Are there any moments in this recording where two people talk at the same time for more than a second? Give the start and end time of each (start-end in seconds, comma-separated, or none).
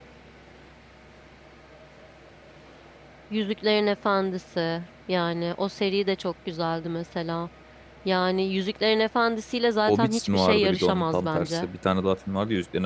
9.9-11.7